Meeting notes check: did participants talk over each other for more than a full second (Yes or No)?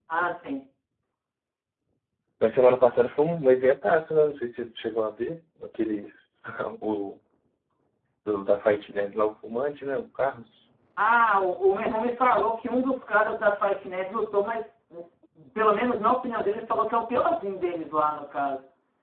No